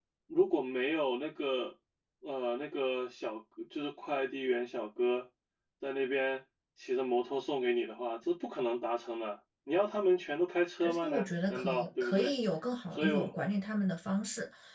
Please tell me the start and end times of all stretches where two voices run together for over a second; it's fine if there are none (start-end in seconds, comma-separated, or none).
10.8-12.3